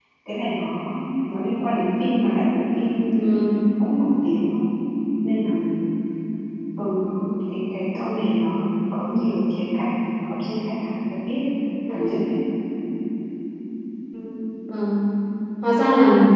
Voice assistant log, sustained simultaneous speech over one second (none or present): none